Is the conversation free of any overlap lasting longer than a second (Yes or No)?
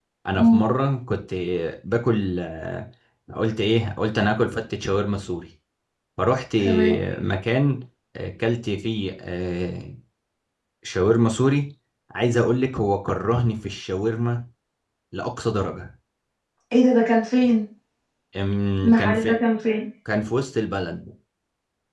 Yes